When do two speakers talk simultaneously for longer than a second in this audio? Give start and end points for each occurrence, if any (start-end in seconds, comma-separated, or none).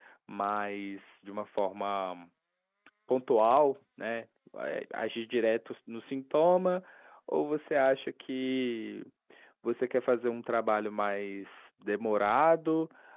none